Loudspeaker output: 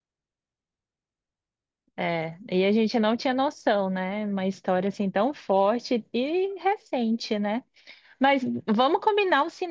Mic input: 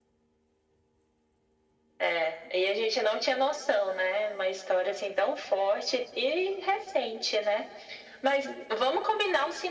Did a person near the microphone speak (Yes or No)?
No